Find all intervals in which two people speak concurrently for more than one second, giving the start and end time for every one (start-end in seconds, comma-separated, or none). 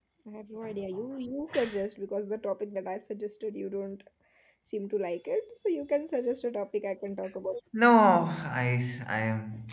none